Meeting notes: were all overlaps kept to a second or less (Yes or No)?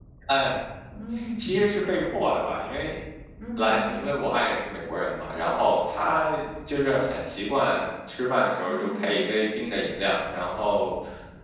Yes